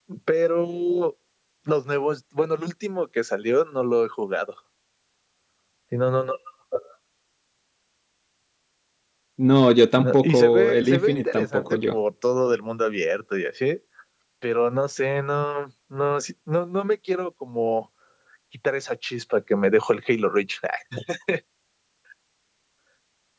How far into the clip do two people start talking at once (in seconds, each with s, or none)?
10.0 s